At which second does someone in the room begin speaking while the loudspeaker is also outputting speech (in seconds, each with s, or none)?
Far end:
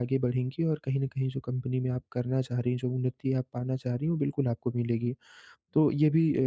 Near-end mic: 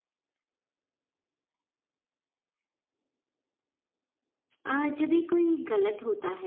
4.7 s